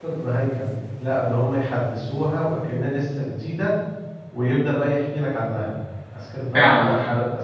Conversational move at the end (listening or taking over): listening